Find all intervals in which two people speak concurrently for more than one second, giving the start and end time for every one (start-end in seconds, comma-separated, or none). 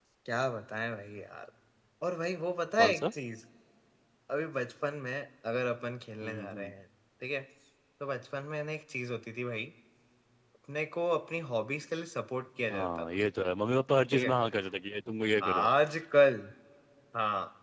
none